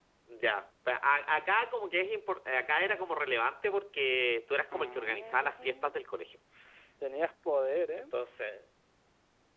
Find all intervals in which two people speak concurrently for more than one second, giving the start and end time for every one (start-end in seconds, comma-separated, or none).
4.7-5.9